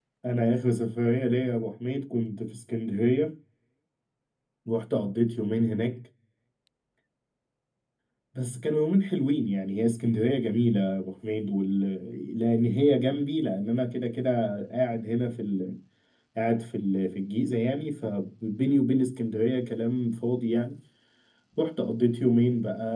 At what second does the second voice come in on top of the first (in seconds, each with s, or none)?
none